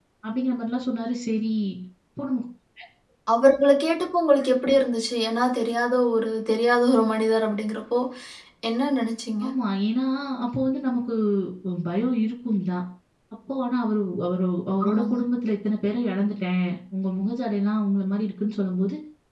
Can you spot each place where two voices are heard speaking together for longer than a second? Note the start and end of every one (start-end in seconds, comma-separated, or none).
none